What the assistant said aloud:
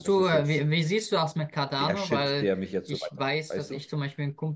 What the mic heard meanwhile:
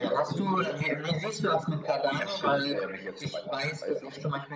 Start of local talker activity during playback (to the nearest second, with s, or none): none